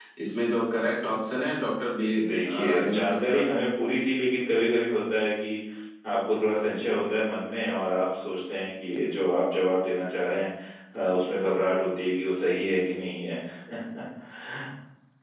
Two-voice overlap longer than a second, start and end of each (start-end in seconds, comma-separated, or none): 2.2-3.5